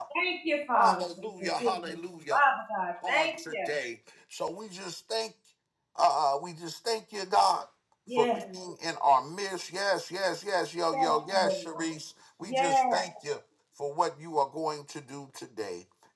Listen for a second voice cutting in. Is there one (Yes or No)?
Yes